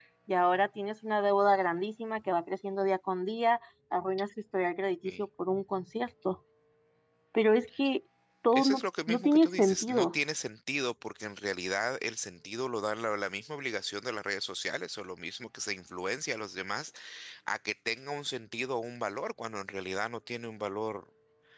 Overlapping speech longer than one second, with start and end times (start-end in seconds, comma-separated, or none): 8.5-10.2